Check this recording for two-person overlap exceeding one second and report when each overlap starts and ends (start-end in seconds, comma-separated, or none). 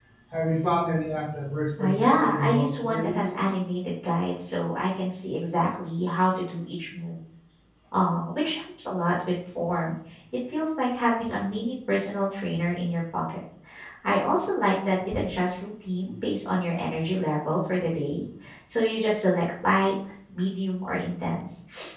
1.8-3.2